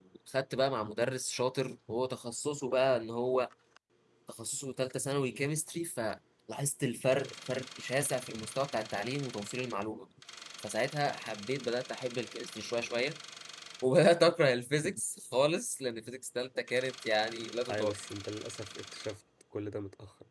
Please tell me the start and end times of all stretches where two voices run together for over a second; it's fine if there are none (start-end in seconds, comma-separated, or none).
none